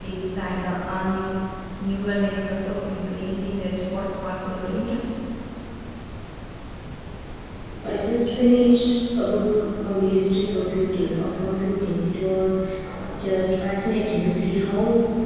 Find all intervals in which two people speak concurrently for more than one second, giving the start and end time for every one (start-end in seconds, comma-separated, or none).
none